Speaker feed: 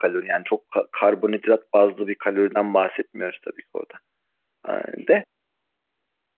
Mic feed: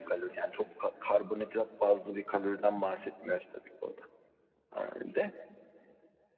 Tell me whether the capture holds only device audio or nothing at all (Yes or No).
Yes